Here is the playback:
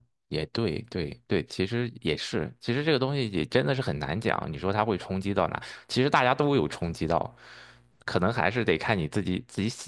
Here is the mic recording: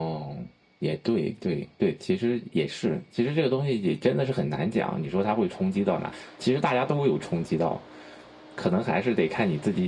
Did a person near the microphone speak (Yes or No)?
No